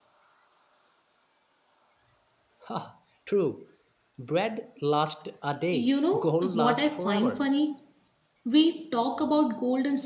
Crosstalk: present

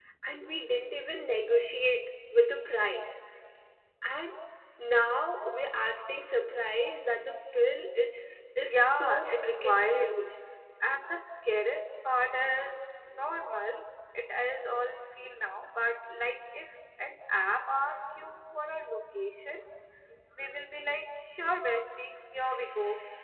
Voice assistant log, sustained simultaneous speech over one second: present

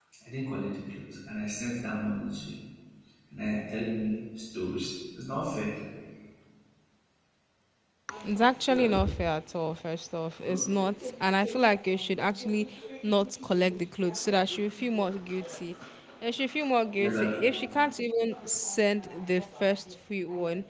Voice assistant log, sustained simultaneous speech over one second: none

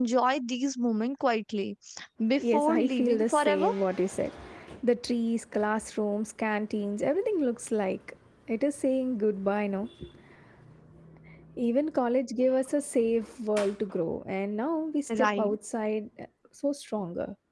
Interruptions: present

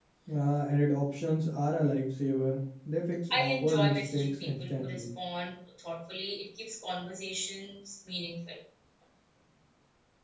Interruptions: present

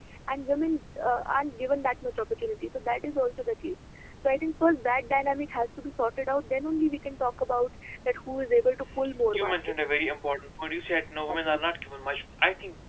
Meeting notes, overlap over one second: none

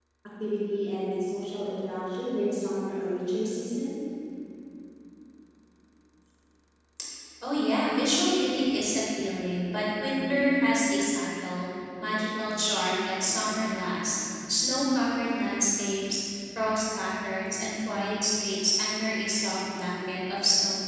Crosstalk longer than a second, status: none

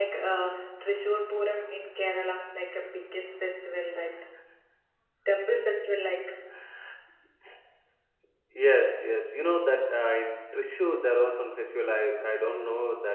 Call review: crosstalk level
none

